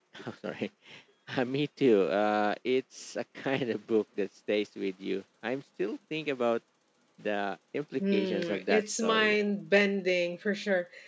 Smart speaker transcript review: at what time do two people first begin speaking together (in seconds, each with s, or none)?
8.0 s